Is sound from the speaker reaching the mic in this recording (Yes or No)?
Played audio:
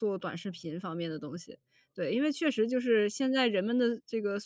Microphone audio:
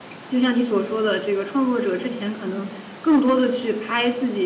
No